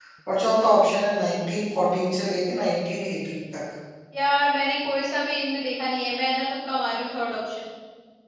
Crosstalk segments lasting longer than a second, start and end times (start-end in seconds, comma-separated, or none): none